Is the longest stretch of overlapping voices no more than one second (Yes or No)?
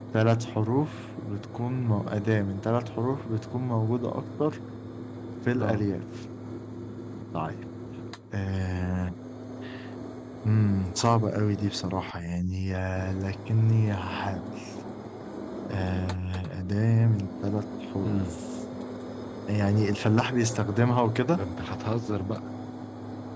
Yes